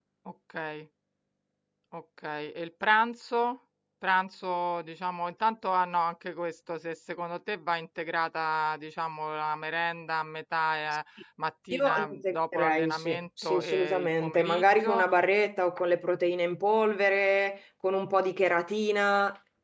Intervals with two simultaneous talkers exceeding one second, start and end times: 11.7-15.0

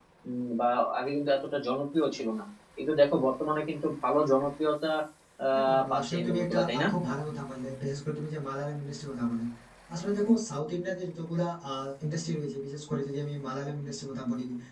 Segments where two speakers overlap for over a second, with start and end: 5.5-6.9

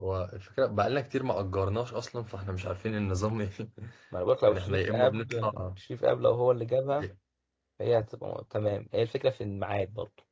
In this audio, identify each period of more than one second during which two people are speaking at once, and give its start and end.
4.5-5.7

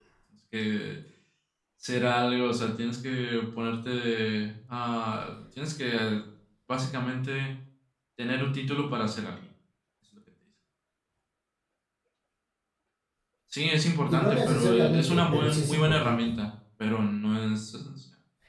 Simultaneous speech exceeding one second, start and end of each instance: 14.1-16.3

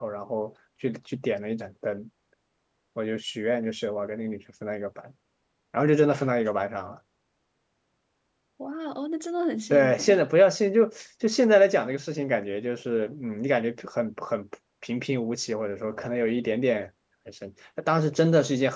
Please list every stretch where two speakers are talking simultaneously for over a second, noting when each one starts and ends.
none

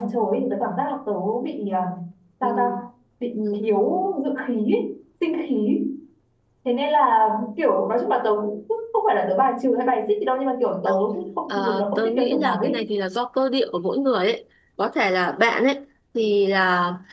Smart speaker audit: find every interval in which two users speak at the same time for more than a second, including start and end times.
11.6-12.8

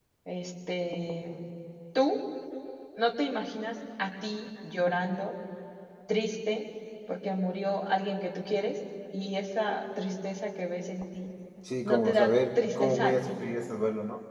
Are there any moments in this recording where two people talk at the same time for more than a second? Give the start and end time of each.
11.8-13.4

